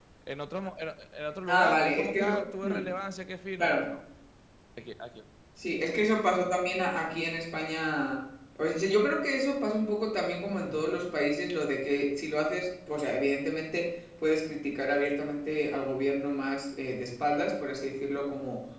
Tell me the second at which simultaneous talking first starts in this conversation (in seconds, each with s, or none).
1.5 s